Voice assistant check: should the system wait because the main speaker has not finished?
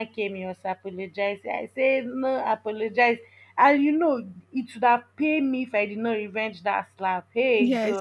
Yes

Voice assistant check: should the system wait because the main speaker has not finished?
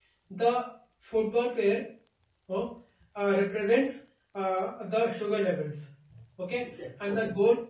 Yes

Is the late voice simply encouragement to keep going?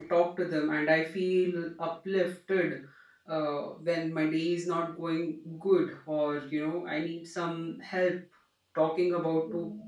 Yes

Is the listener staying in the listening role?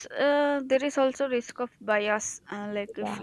Yes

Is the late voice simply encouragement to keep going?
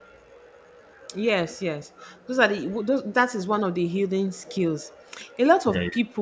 Yes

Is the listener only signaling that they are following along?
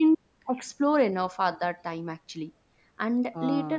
Yes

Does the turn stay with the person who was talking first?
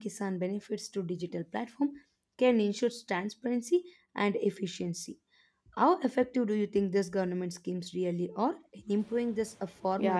No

